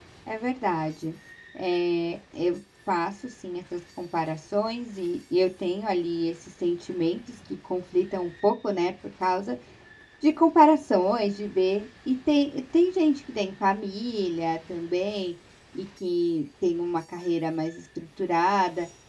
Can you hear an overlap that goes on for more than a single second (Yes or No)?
No